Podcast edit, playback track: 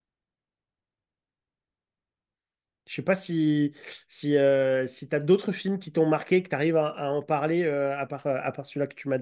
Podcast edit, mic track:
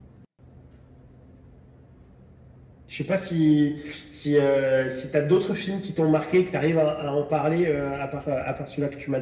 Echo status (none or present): present